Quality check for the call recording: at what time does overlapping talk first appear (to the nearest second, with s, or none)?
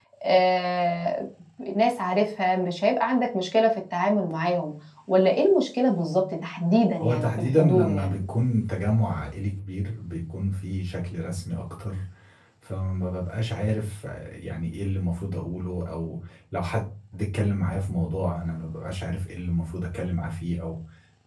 7 s